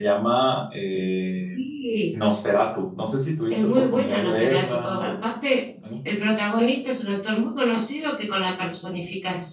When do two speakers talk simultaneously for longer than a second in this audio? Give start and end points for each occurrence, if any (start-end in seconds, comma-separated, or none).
3.5-5.2